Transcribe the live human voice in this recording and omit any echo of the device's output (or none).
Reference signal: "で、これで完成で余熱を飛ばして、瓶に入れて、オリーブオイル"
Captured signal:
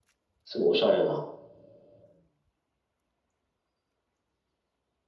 すごいおしゃれな、